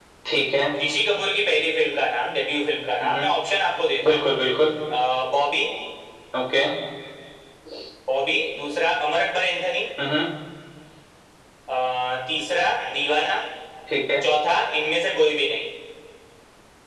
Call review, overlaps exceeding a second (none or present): none